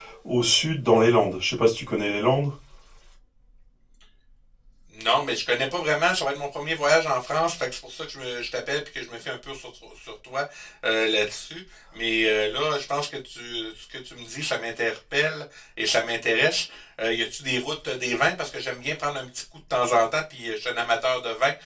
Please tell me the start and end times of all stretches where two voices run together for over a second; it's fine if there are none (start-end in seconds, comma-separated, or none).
none